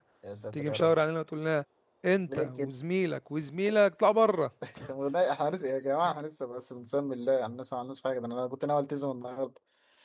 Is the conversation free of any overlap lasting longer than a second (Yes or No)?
Yes